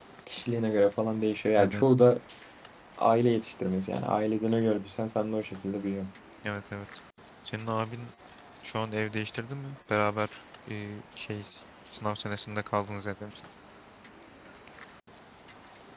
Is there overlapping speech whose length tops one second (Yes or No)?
No